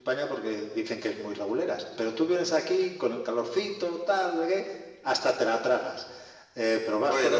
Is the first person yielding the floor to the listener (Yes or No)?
No